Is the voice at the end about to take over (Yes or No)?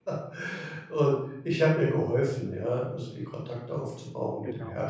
No